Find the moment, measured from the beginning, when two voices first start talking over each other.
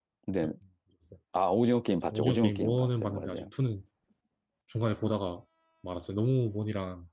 2.1 s

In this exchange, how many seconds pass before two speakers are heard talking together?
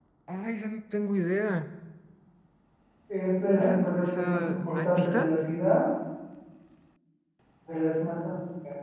3.6 s

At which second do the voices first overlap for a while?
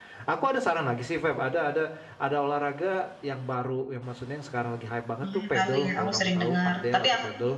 5.2 s

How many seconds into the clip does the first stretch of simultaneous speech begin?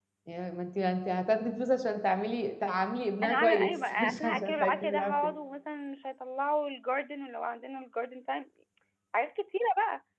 3.2 s

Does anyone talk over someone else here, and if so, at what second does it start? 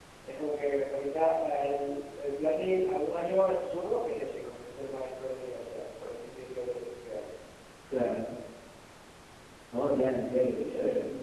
none

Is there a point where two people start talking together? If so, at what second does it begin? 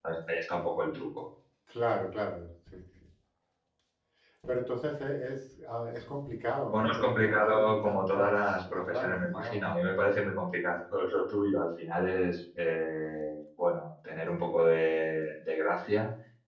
6.7 s

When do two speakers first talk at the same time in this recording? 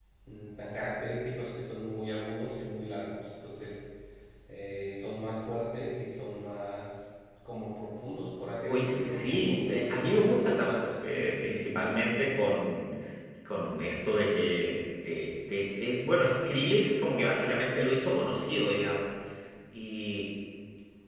8.7 s

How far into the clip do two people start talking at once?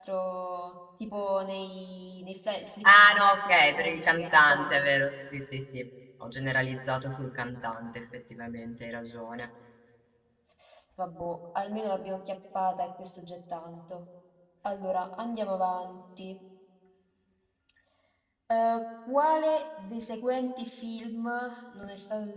2.8 s

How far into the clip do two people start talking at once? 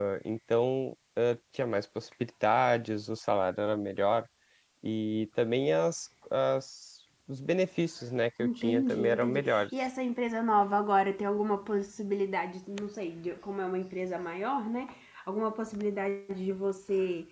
8.4 s

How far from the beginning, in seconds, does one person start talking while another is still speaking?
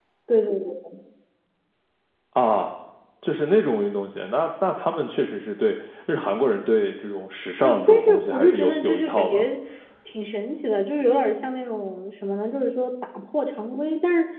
7.6 s

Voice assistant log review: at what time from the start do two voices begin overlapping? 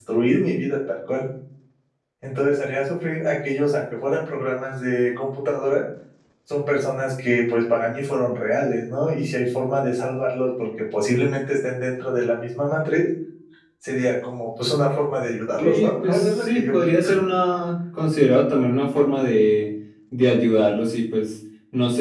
15.6 s

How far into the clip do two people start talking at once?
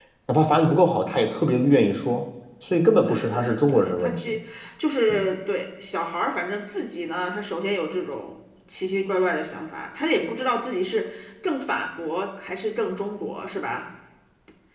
3.1 s

